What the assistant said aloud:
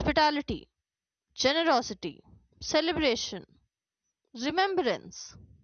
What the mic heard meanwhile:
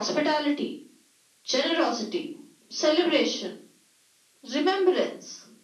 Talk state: echo only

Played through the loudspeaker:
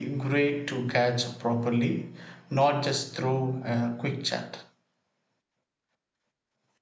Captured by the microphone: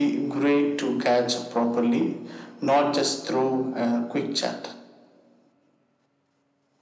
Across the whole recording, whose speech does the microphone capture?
echo only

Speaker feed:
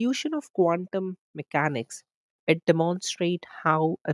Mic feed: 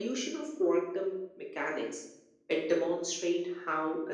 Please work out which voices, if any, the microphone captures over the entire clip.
echo only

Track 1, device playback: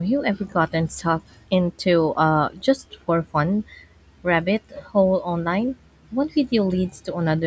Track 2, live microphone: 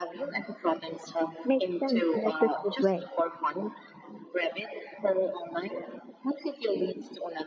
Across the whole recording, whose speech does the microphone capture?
both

